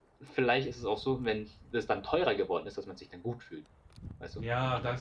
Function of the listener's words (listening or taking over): taking over